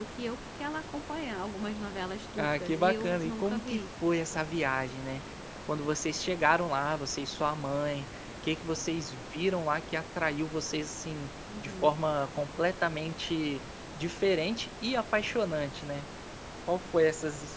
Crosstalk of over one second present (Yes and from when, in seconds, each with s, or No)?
Yes, from 2.4 s